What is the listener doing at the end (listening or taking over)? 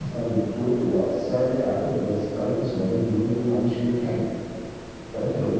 listening